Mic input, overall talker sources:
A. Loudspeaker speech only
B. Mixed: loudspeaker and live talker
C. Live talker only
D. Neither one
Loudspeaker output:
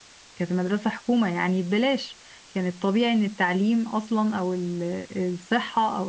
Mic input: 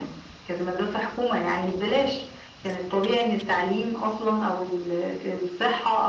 A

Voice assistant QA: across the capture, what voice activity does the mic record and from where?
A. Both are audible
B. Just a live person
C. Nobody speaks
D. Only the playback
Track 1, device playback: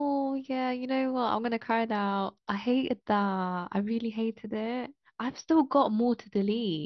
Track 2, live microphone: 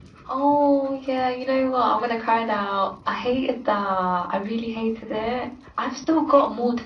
D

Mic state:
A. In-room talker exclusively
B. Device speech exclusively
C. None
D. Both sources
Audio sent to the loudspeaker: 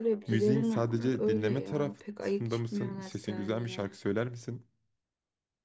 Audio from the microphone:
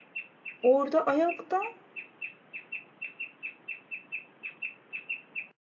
A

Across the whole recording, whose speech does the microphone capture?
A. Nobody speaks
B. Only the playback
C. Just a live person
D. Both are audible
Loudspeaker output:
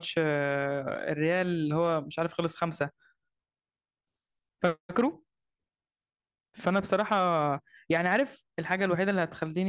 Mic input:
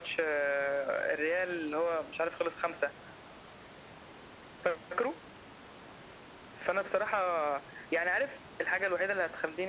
B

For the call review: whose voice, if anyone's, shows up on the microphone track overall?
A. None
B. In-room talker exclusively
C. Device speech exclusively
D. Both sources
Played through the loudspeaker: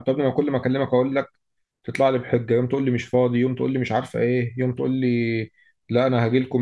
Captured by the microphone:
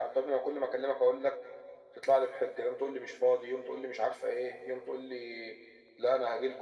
C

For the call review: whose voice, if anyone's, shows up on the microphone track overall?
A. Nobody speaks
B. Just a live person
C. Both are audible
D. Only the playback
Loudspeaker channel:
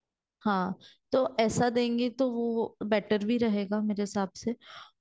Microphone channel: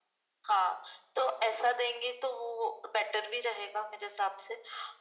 D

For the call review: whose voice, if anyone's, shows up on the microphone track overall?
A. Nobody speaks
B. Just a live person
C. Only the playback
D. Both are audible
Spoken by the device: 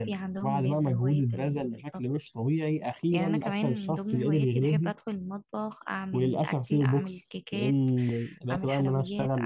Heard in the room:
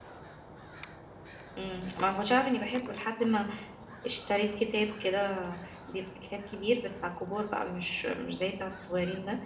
B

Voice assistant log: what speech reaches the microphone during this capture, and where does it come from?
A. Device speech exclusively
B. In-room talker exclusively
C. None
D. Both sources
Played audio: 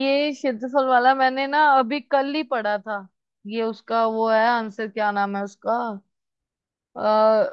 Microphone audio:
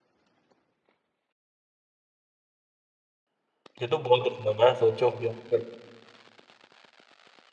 B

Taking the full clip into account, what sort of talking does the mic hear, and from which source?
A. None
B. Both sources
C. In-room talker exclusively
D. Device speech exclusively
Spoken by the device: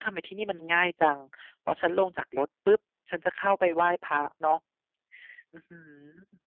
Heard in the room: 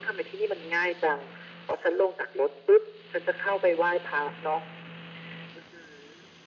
D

